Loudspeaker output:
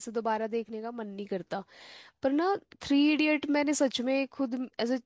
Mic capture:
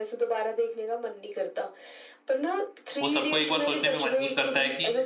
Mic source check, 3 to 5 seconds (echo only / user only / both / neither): both